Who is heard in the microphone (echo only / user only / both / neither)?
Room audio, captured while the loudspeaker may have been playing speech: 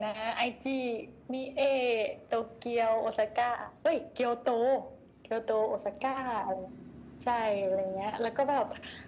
echo only